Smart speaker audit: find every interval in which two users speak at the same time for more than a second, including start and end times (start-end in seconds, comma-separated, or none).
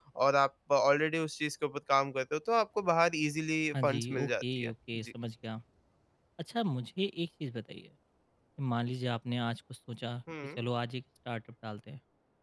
3.8-5.1